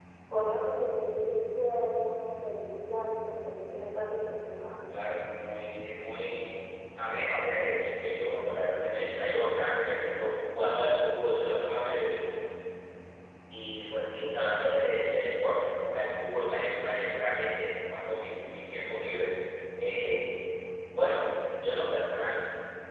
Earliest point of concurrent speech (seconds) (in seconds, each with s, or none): none